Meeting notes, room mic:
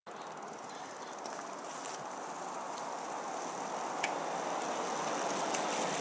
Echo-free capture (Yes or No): Yes